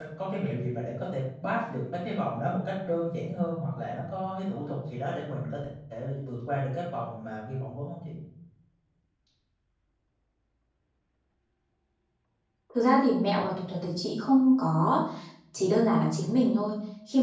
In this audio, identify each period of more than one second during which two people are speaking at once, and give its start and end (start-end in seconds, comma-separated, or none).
none